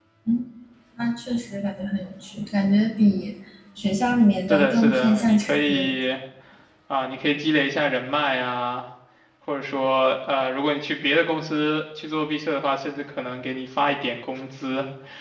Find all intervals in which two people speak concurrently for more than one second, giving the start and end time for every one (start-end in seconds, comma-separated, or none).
4.5-6.0